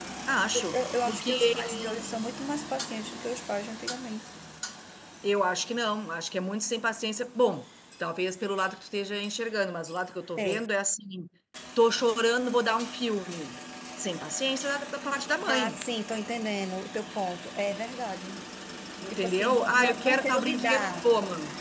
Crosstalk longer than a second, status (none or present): present